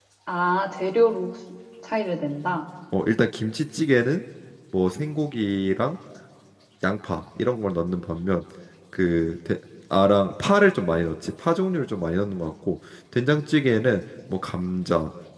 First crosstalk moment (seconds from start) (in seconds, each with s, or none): none